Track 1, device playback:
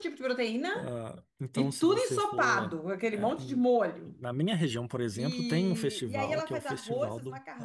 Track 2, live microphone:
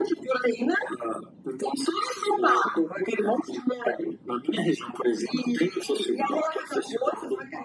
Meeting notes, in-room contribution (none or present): none